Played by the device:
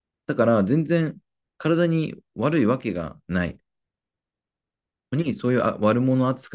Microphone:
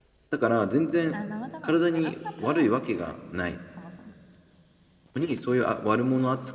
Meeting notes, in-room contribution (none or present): present